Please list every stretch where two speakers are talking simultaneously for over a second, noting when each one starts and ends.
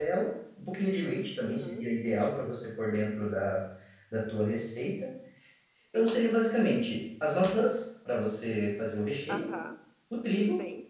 none

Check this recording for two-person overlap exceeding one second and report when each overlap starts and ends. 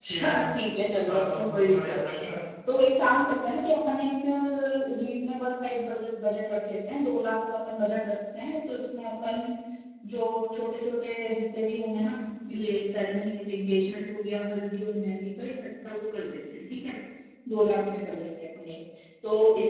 1.1-2.3

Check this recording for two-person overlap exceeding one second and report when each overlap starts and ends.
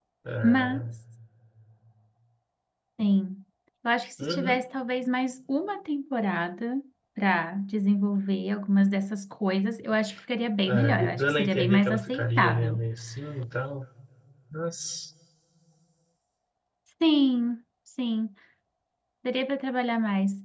10.7-12.8

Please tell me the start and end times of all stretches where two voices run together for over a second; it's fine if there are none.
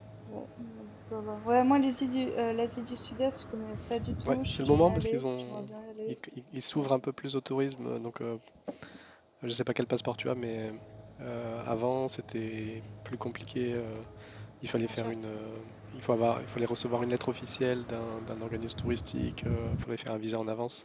4.2-5.7

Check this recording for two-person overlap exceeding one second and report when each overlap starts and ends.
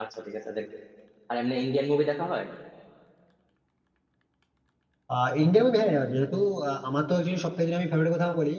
none

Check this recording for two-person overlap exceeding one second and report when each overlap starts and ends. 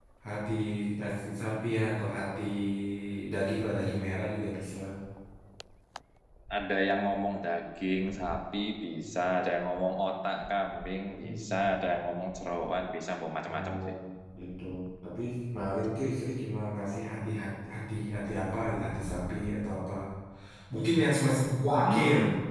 none

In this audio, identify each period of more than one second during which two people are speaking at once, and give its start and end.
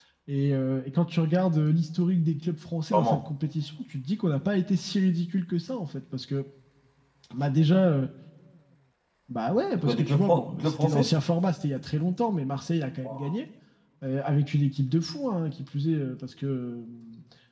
9.7-11.1

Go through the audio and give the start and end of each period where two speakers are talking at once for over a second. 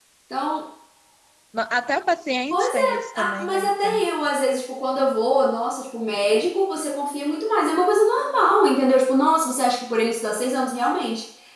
2.5-4.1

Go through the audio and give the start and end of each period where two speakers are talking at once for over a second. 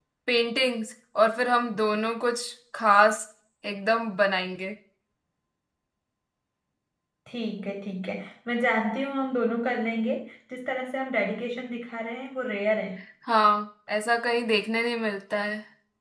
none

